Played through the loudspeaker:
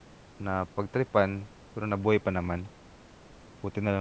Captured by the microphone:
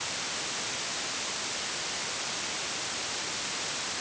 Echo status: none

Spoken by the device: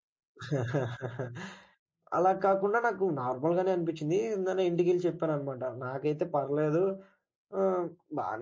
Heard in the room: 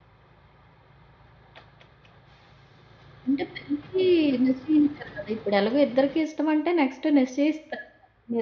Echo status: none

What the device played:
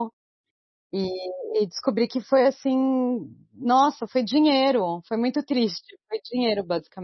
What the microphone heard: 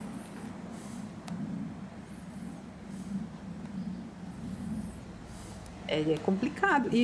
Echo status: none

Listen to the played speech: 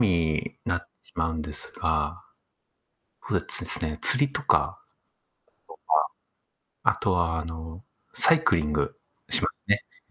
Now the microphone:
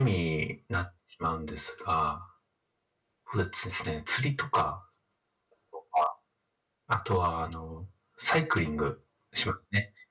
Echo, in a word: present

